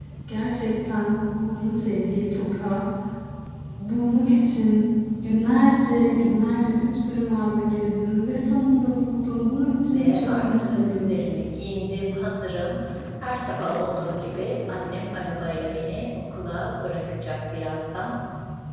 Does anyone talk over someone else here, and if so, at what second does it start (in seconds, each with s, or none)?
9.9 s